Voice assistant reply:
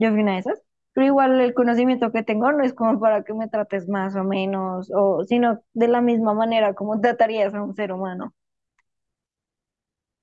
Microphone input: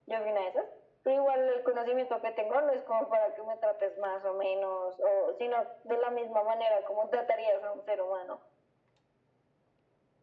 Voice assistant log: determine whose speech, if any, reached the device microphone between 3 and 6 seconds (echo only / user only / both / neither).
echo only